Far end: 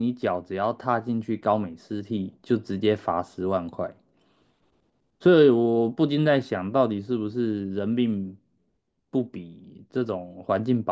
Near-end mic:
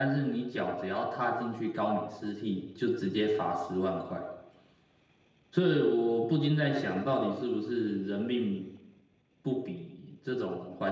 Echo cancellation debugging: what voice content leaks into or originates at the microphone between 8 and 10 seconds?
echo only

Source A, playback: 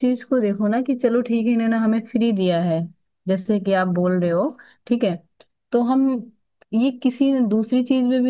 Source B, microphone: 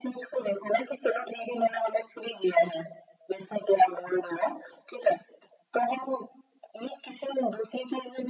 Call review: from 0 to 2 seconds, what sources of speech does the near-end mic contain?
echo only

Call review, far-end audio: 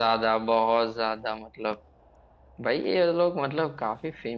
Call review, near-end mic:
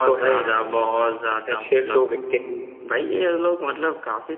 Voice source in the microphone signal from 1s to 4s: both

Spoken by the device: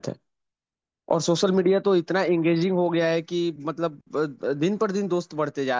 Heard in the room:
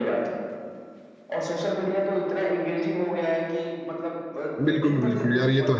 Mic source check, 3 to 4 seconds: echo only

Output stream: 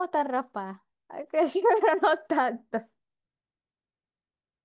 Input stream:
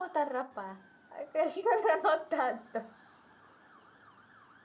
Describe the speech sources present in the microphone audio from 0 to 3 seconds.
echo only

